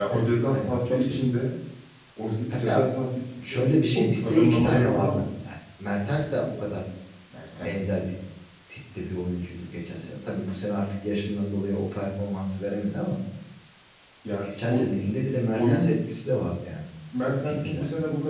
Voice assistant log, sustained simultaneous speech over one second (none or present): present